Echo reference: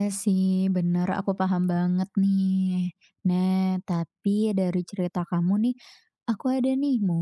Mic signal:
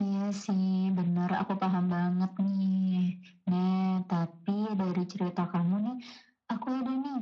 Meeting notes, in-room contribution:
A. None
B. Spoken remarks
A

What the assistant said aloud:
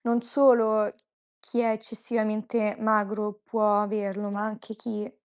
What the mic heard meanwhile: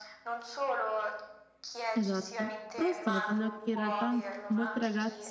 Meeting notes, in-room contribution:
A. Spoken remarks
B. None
A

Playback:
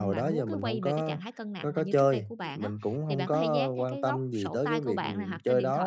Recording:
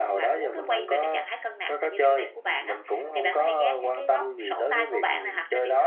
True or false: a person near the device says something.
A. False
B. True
A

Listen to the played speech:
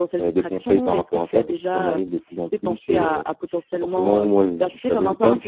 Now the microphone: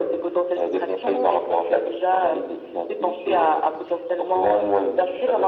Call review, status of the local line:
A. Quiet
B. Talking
A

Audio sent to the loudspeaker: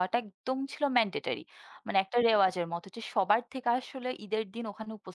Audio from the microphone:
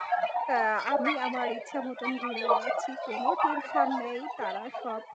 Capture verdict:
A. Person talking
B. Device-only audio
A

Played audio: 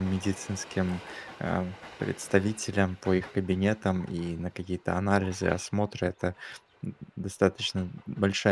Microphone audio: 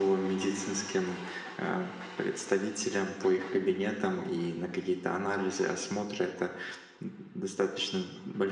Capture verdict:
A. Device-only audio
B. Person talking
A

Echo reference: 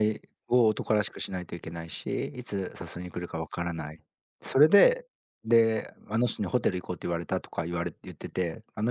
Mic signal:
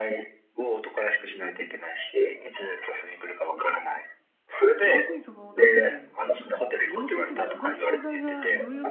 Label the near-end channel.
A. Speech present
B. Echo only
A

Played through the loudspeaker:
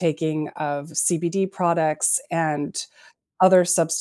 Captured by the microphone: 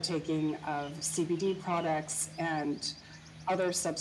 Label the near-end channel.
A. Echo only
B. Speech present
A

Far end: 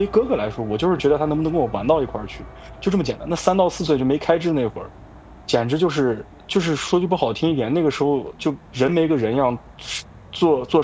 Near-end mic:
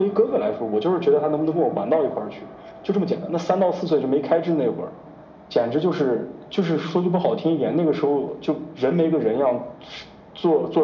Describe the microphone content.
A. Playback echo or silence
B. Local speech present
A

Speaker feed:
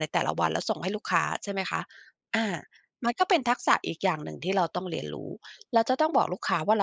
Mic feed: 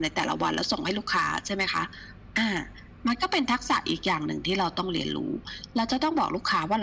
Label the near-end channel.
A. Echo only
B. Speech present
A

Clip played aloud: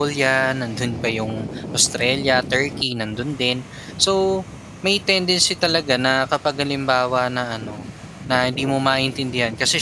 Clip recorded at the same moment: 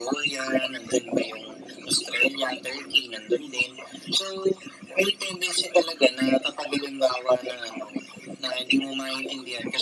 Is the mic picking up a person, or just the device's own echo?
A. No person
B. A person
A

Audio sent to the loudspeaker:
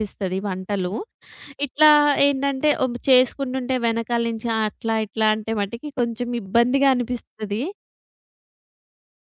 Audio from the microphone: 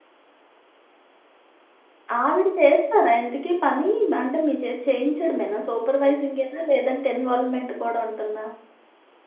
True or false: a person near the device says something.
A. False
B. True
B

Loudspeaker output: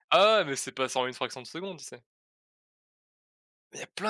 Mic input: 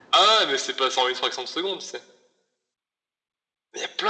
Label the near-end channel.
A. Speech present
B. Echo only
B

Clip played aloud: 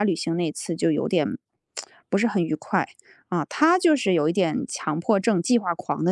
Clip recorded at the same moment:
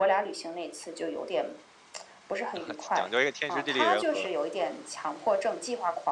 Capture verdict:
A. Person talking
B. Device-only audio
A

